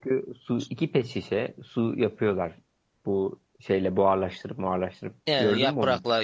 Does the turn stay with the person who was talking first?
No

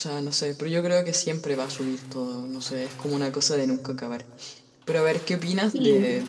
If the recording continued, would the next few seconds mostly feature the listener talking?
No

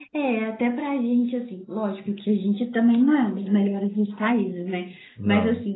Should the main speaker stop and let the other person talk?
No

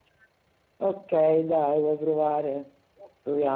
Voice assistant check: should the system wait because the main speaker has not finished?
No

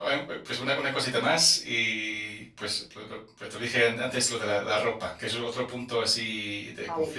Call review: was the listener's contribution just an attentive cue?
No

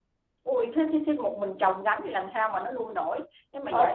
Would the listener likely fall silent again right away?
No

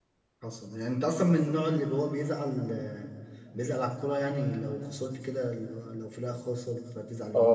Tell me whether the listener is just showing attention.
No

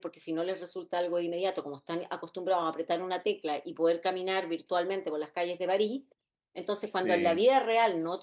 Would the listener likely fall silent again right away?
Yes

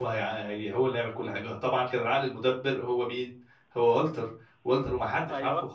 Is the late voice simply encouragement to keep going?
Yes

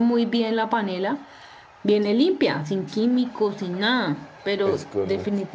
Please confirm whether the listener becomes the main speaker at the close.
No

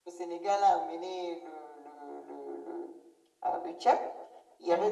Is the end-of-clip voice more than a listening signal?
No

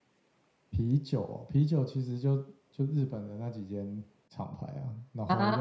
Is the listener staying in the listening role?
Yes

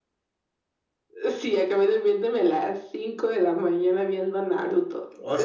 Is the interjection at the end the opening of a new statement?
No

